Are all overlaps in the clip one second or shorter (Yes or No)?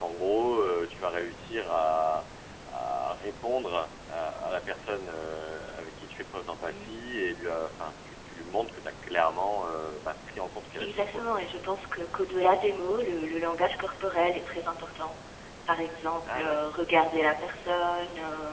Yes